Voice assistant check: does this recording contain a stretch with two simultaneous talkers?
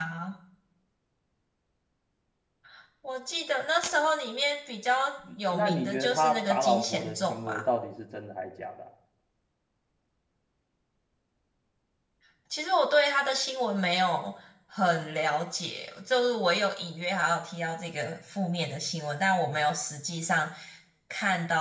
Yes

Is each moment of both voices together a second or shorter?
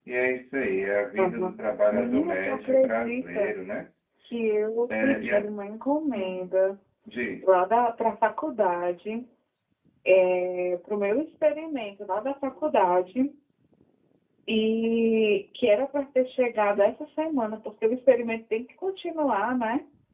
No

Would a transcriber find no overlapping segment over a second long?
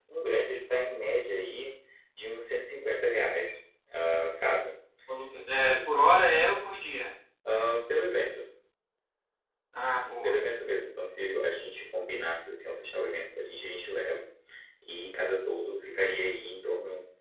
Yes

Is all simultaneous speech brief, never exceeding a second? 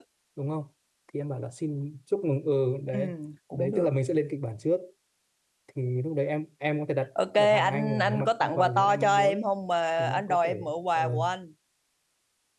No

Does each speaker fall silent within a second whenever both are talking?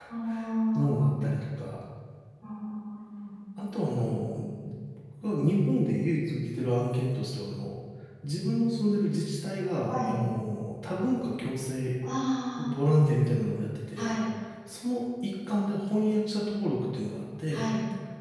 Yes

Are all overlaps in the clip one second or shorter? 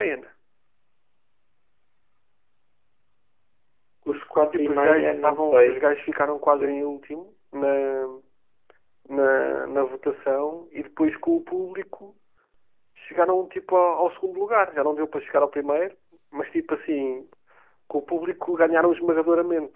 No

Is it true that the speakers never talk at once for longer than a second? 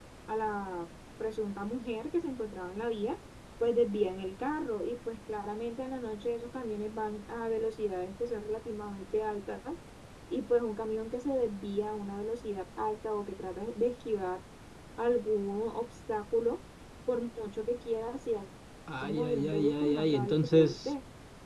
No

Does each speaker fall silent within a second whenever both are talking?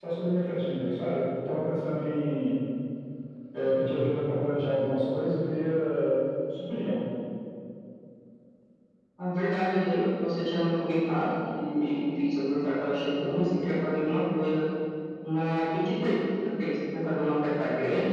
Yes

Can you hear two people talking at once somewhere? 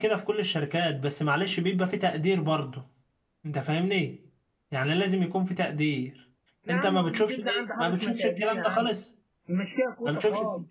Yes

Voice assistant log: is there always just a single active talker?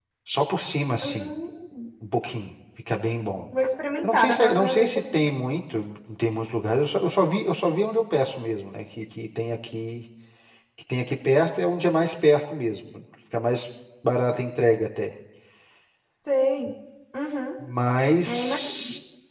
No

